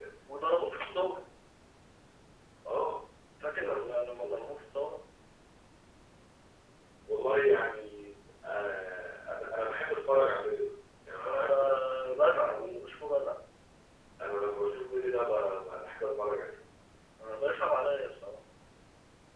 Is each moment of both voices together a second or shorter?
No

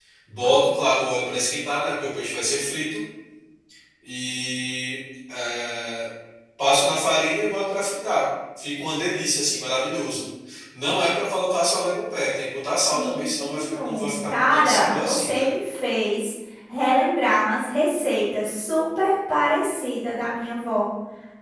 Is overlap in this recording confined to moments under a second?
No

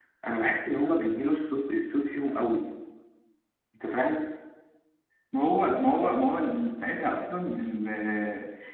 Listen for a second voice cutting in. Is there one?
No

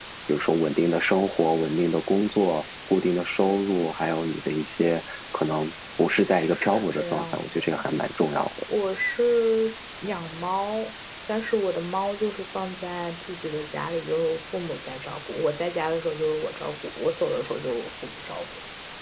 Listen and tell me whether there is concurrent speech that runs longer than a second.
Yes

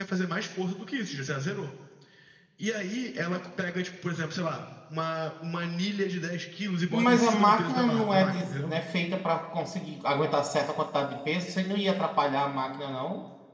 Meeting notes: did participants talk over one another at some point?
Yes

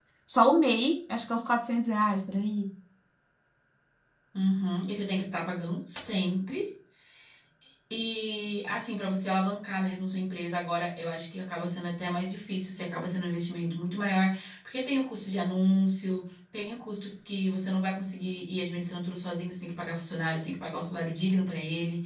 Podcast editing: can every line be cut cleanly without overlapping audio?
Yes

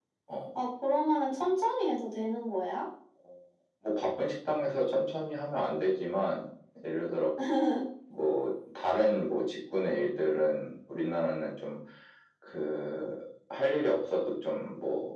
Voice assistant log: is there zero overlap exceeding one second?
Yes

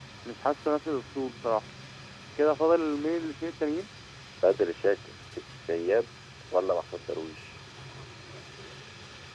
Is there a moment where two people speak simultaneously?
No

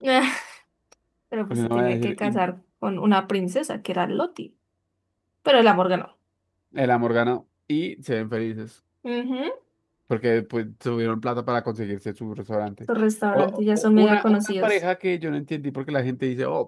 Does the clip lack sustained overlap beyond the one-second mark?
No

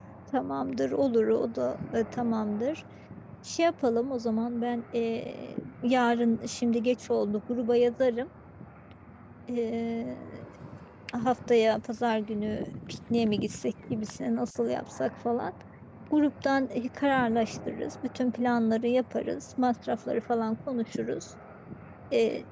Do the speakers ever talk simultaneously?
No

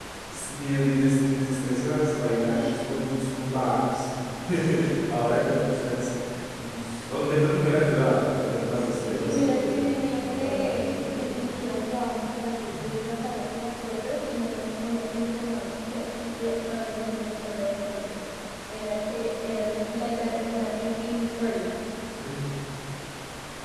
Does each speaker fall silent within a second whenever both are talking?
No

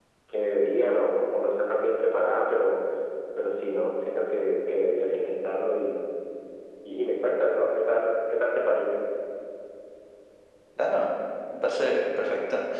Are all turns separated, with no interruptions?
Yes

